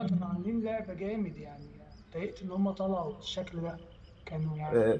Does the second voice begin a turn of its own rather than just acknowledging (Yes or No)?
Yes